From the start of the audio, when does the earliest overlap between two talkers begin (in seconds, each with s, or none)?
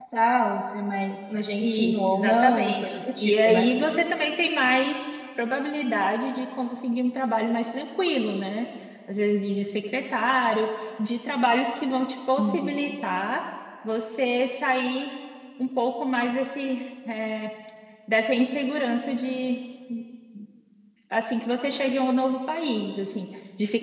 1.6 s